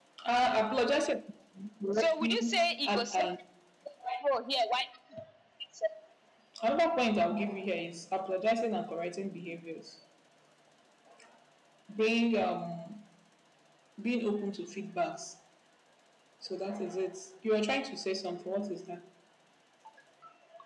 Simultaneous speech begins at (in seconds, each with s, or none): 1.9 s